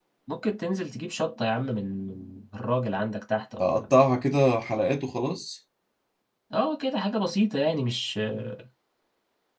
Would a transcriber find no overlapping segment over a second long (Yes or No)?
Yes